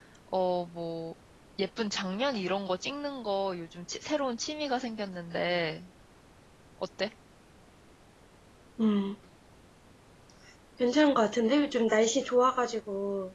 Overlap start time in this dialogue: none

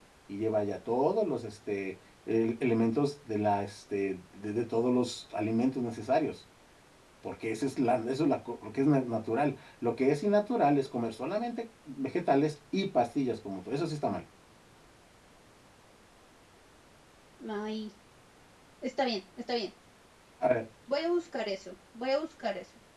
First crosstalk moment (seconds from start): none

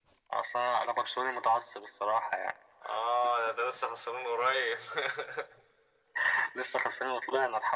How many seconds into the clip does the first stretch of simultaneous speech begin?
none

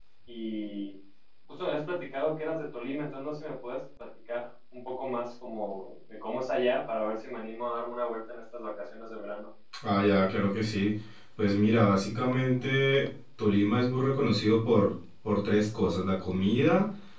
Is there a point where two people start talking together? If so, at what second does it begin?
none

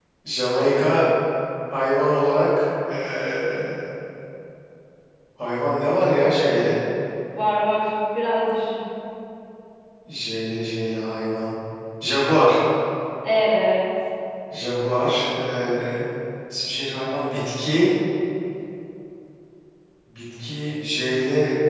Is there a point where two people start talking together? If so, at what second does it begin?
none

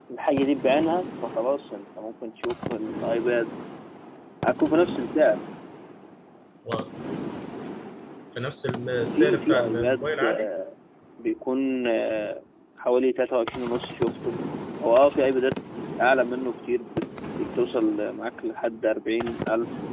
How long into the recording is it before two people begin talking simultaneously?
9.1 s

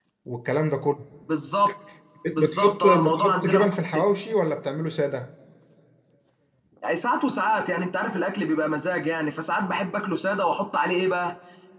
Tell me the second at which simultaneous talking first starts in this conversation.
2.4 s

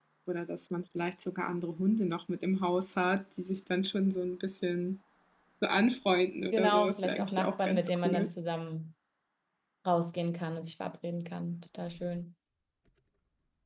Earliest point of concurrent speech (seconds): 6.5 s

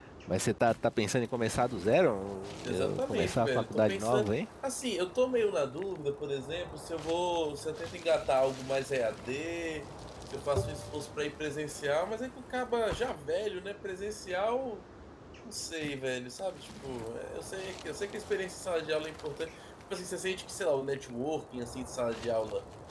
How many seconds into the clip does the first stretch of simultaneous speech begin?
2.6 s

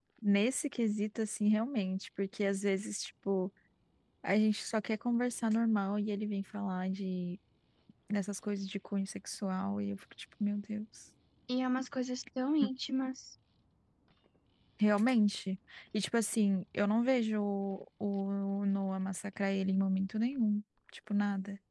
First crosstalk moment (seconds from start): none

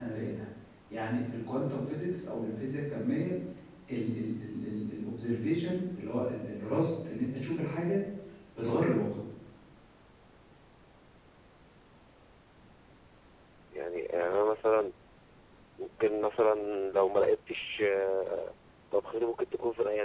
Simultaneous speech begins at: none

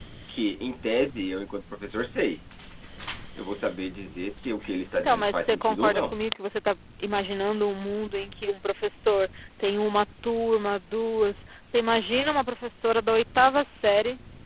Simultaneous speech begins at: 4.9 s

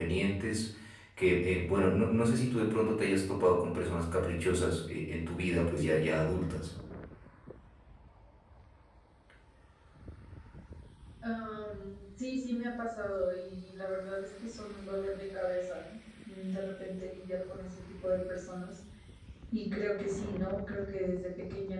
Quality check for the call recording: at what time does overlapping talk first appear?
none

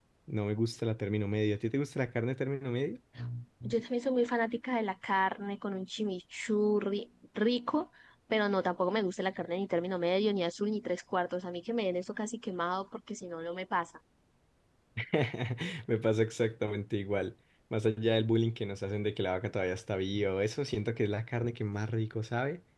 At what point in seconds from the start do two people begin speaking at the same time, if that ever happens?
none

